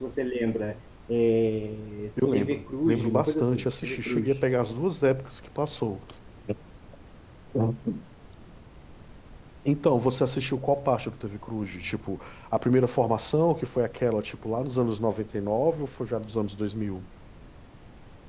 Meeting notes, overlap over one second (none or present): present